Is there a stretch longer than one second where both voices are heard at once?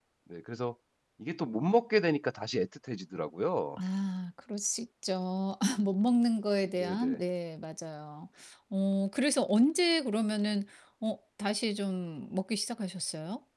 No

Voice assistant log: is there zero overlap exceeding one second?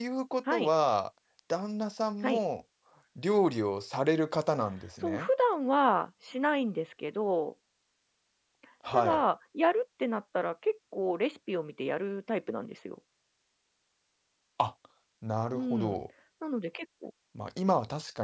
Yes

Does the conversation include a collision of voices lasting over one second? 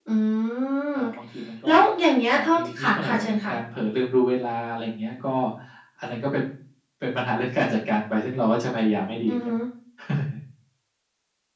Yes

